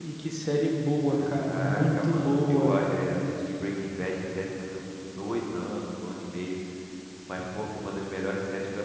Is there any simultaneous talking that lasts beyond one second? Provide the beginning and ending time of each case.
1.1-2.8

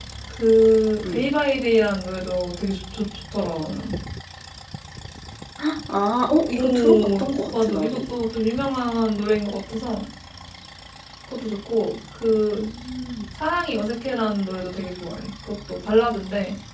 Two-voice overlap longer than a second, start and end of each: 6.5-8.0

